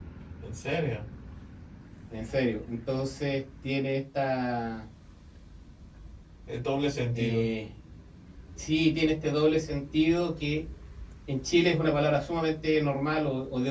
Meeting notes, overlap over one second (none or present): none